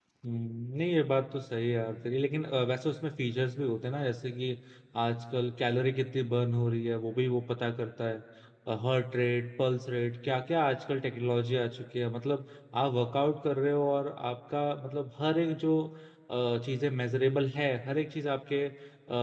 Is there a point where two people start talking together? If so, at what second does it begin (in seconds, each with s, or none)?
none